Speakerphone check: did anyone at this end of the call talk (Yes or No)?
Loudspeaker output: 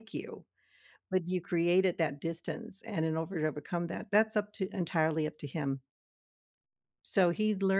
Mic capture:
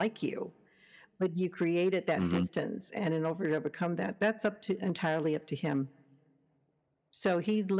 Yes